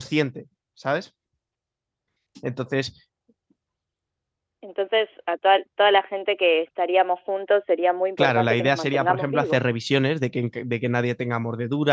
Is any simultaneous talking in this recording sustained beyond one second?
Yes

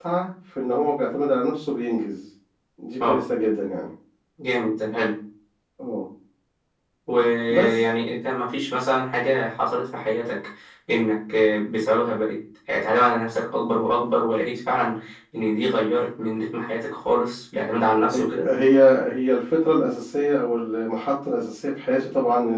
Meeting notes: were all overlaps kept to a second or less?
Yes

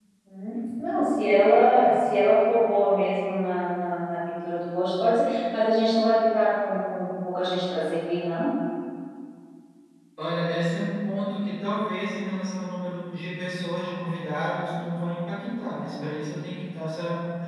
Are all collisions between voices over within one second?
Yes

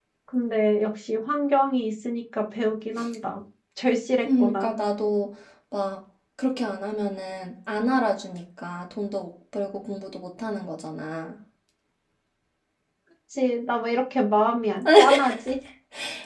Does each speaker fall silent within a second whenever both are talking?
Yes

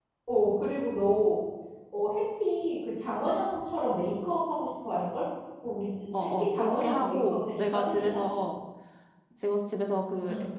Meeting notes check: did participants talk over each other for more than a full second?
Yes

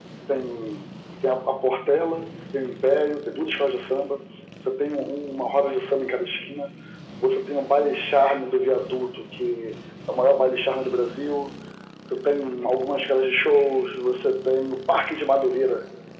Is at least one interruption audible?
No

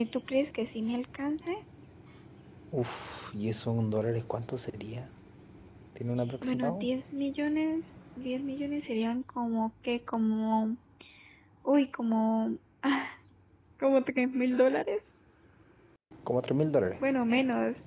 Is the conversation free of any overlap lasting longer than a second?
Yes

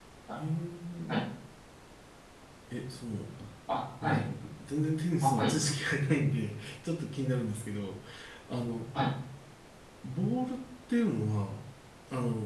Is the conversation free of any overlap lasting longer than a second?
Yes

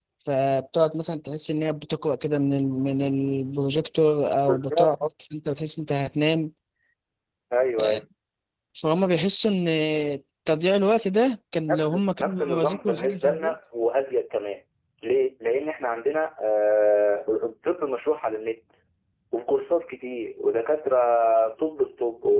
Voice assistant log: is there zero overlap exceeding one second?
No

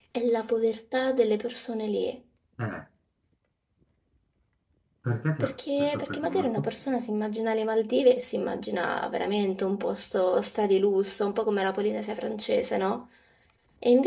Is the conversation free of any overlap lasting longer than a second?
No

